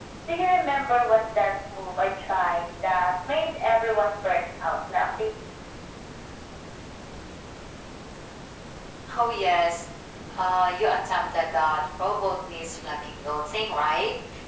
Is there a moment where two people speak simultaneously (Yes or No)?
No